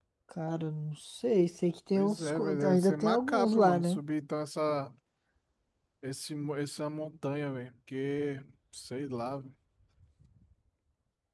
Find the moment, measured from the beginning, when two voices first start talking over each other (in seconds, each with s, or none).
2.0 s